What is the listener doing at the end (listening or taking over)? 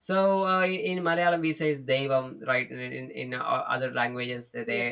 listening